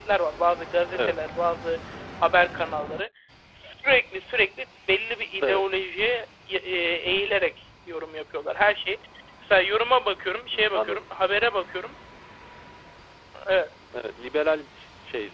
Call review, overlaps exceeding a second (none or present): none